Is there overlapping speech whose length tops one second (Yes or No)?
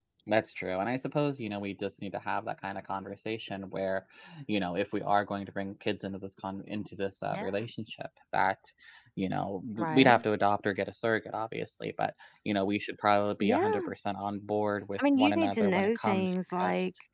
Yes